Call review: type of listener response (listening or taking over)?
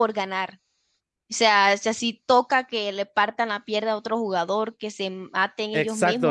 taking over